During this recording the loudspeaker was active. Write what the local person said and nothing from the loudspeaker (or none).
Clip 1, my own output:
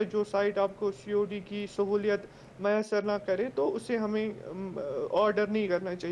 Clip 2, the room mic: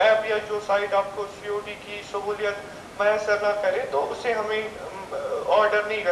none